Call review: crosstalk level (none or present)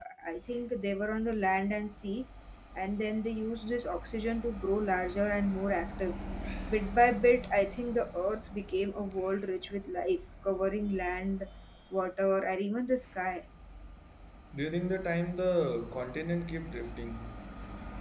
none